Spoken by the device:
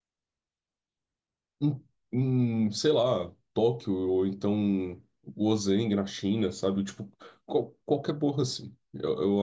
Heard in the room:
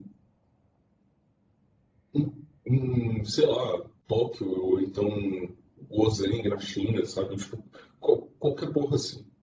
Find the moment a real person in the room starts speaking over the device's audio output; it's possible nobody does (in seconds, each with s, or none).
none